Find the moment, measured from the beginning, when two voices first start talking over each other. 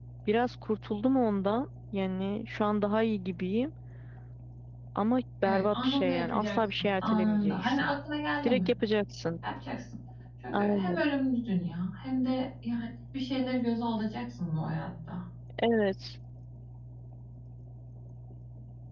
5.4 s

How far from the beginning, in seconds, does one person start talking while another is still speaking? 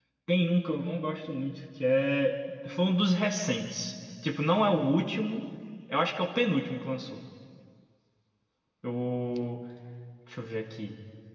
none

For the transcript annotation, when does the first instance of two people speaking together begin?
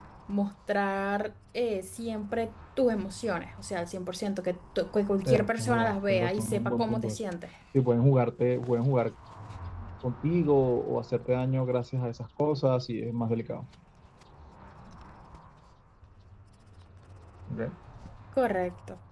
5.3 s

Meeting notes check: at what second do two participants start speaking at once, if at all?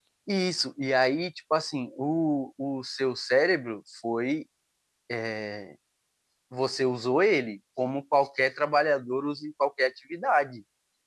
none

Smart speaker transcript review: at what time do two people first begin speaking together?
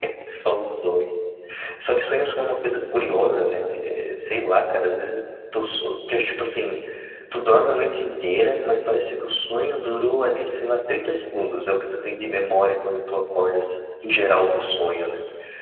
2.4 s

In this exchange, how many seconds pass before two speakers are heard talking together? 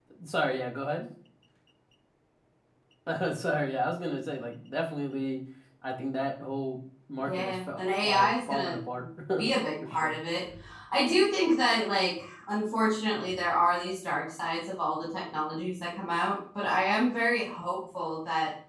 7.2 s

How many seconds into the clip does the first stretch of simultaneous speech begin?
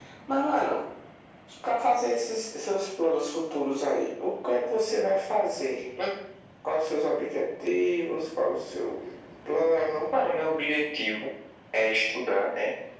none

